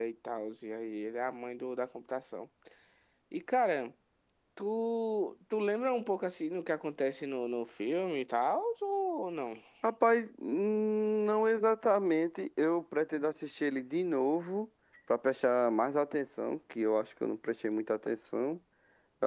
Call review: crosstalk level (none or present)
none